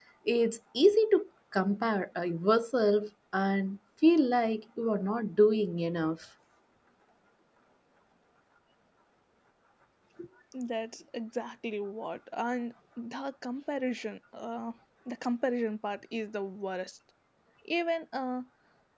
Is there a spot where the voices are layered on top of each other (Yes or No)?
No